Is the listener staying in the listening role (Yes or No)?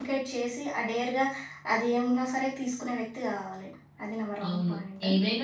No